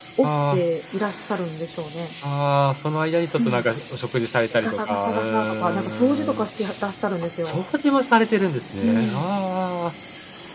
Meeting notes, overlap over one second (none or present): present